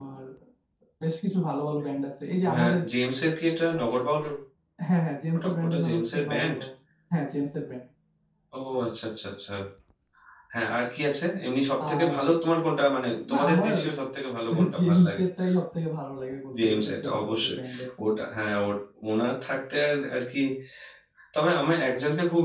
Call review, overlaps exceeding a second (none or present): present